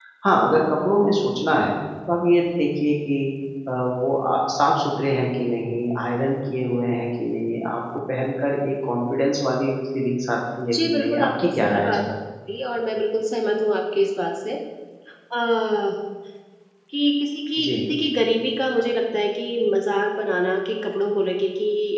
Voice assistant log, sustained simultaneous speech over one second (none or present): present